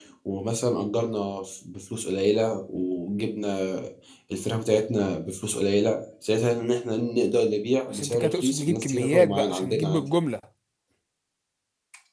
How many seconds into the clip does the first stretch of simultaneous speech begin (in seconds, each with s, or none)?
7.9 s